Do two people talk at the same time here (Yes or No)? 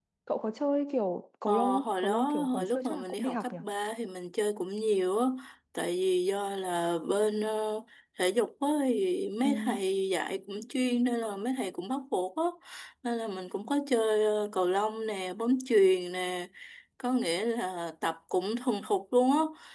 Yes